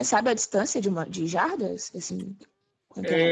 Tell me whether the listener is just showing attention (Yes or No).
No